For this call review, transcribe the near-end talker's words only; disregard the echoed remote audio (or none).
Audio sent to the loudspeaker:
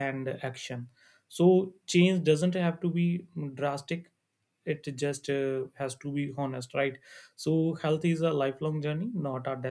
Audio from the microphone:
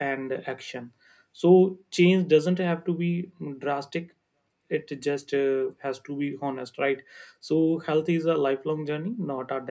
none